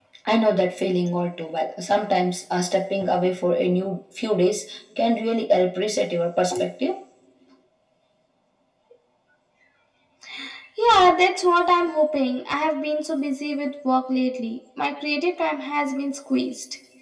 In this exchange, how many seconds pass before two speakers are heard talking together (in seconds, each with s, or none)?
none